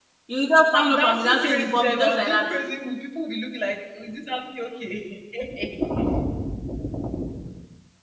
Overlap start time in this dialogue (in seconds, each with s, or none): 0.7 s